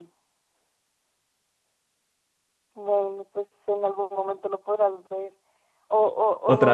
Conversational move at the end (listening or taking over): listening